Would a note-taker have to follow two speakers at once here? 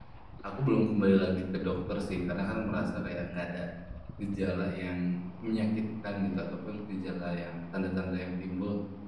No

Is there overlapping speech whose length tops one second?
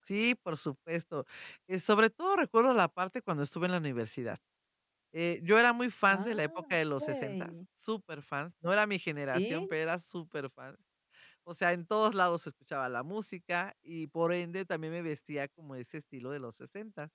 Yes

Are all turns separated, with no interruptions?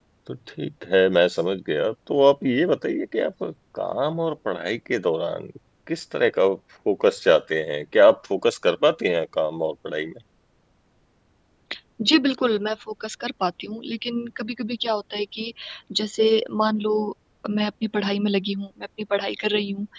Yes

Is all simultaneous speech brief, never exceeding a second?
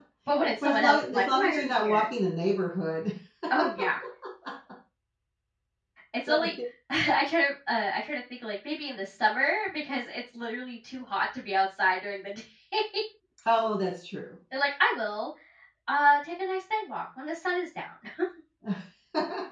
No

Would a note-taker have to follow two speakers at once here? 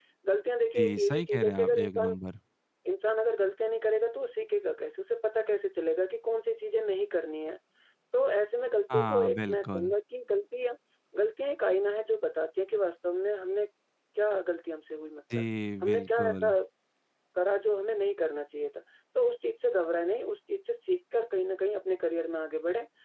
Yes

